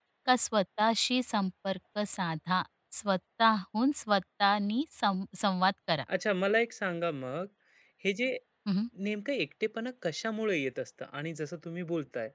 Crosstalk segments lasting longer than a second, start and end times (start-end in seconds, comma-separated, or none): none